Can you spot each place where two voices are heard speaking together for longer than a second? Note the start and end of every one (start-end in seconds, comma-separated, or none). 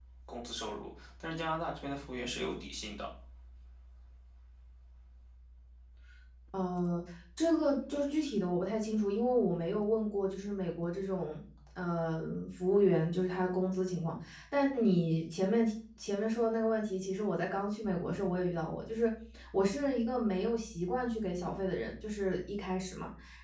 none